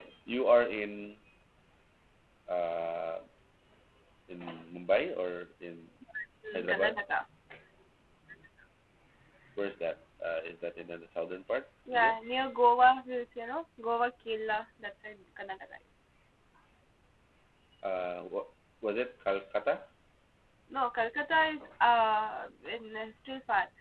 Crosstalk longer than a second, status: none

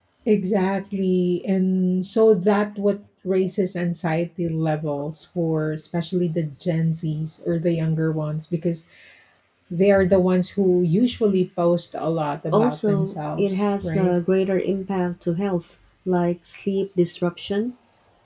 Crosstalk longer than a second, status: present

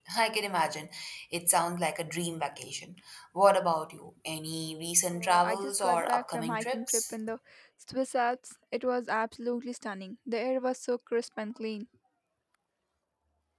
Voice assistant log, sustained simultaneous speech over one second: present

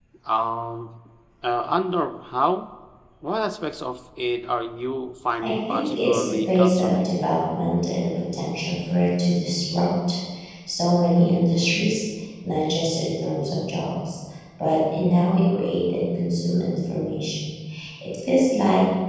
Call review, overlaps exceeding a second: present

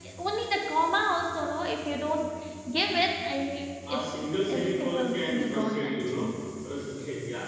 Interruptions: present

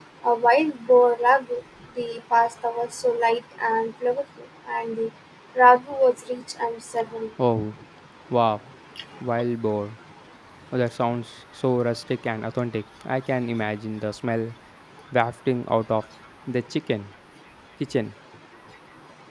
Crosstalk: none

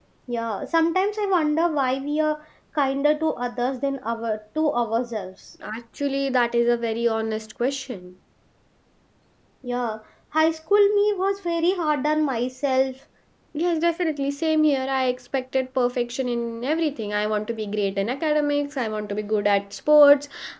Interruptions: none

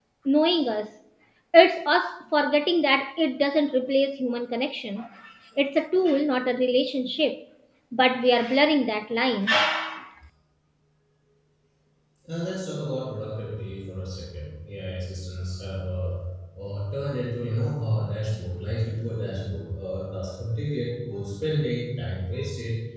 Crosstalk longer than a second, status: none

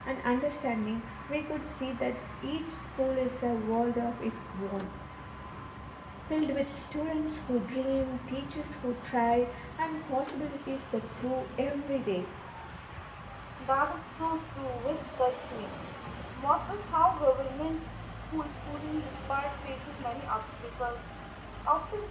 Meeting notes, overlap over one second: none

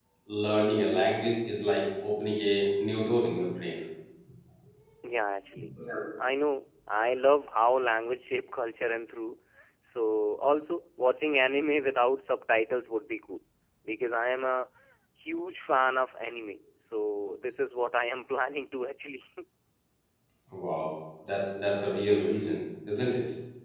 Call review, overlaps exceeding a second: none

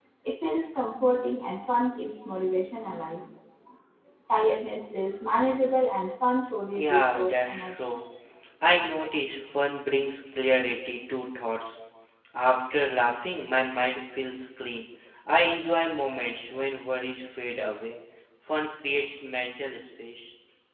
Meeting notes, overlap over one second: present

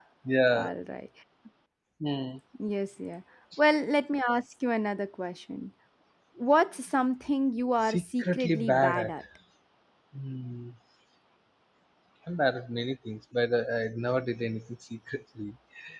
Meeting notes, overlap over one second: present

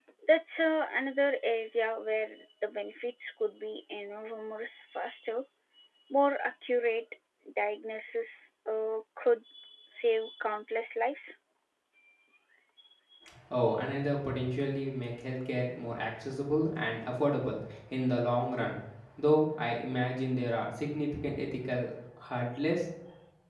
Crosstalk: none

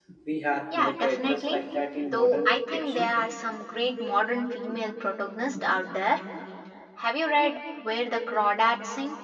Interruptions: present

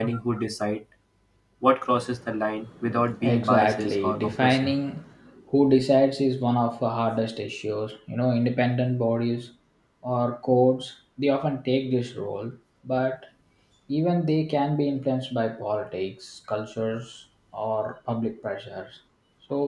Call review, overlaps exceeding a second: present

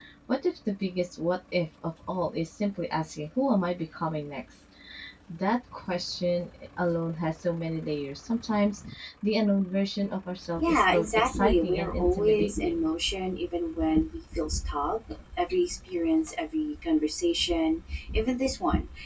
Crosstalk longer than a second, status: present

